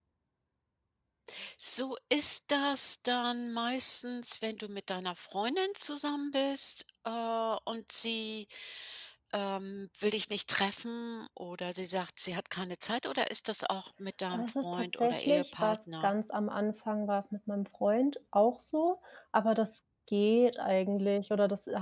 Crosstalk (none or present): present